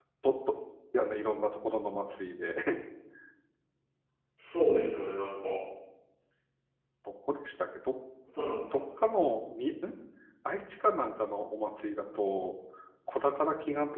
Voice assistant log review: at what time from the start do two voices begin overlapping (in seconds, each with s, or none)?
none